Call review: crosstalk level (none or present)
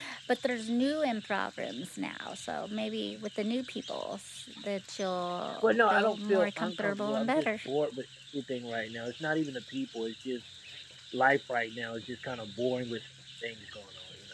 present